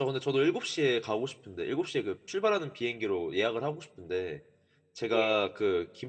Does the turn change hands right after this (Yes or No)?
No